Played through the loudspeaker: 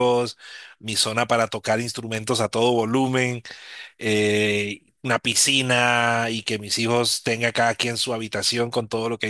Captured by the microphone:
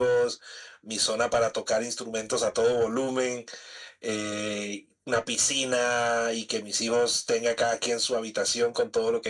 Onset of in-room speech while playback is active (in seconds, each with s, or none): none